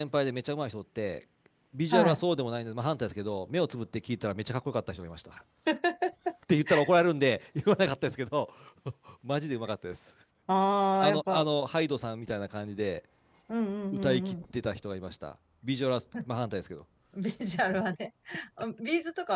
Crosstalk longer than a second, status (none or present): none